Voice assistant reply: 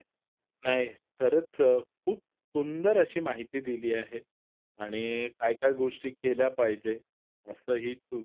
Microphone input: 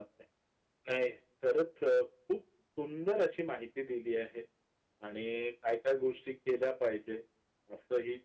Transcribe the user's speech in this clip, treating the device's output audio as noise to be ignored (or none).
none